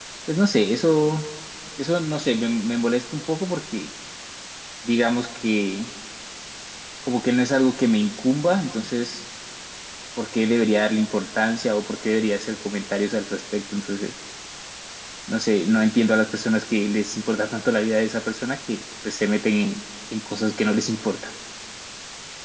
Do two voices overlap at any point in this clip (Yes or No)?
No